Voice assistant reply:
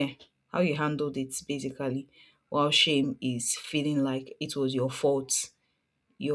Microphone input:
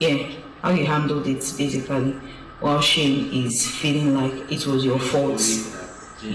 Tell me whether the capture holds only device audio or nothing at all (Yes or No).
No